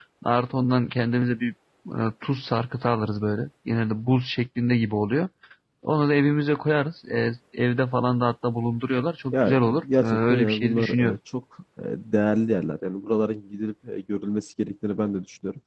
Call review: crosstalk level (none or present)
present